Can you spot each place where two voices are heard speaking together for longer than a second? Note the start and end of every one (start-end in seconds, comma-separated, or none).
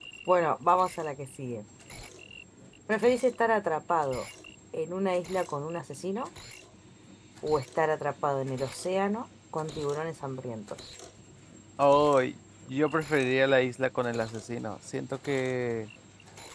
none